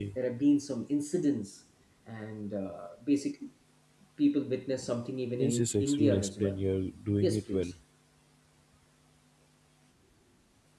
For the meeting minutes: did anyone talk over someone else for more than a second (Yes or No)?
Yes